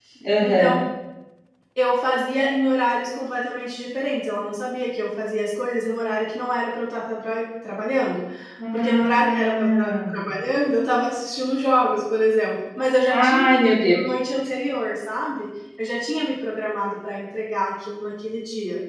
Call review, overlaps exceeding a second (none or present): present